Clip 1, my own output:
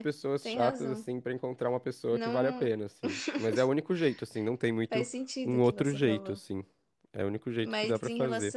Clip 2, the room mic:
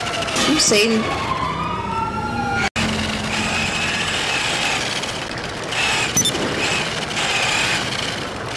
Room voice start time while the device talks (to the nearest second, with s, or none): 0 s